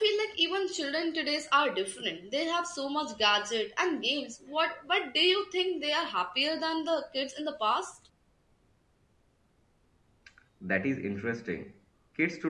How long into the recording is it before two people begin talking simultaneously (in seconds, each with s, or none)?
none